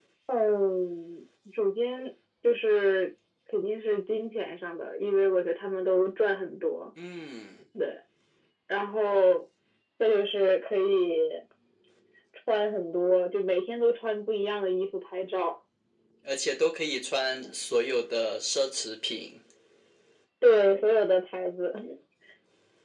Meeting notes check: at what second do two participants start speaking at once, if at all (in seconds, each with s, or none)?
none